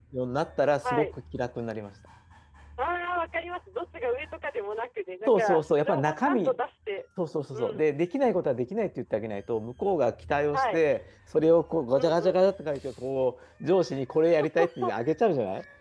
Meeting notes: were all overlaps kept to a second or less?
No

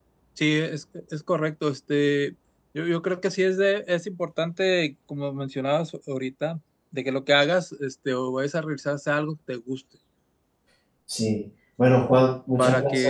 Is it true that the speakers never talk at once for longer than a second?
Yes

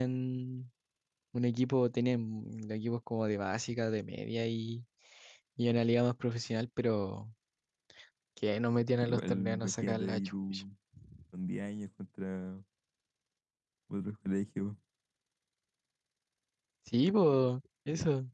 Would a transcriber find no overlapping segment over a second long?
No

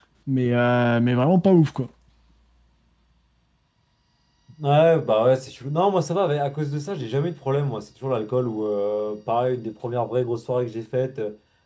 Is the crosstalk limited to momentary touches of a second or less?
Yes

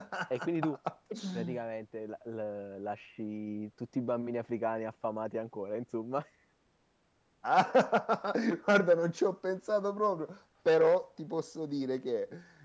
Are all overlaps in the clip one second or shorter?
Yes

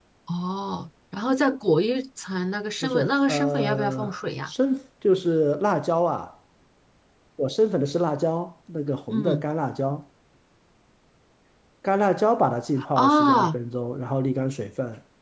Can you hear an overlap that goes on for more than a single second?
Yes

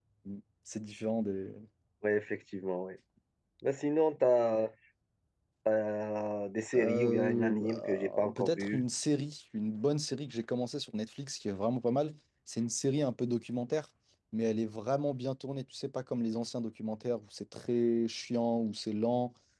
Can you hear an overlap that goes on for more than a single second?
Yes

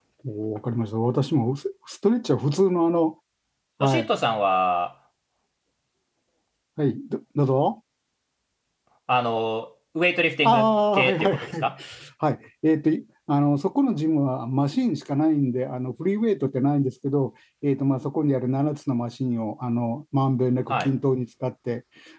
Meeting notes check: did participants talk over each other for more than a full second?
Yes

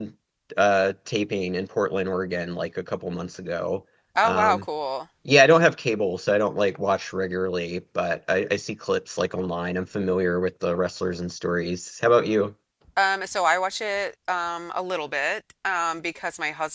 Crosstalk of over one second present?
No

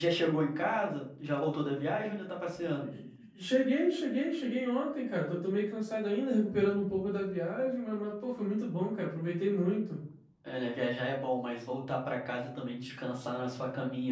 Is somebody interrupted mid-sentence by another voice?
No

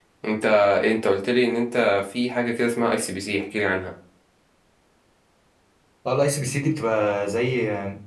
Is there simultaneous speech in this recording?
No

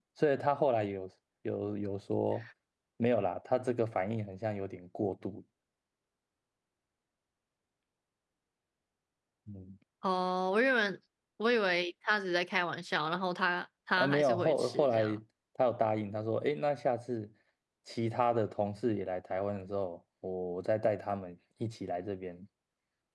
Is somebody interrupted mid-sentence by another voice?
Yes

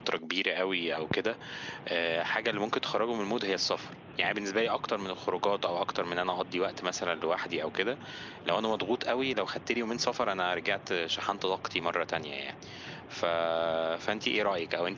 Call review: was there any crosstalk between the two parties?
No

